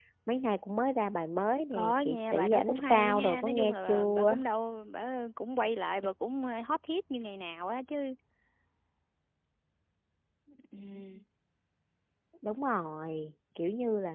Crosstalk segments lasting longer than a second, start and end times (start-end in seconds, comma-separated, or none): 1.7-4.4